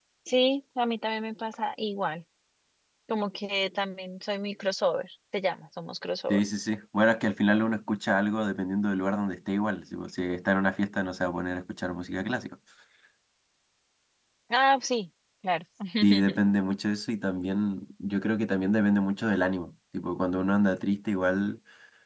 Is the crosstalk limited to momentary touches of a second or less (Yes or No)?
Yes